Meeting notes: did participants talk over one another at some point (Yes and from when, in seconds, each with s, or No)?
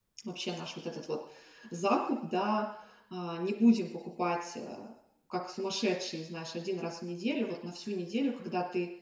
No